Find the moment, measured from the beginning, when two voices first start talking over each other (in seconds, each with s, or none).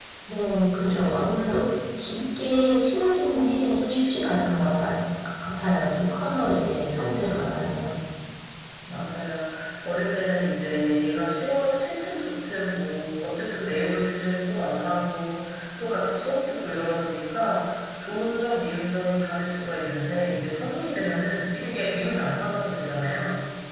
none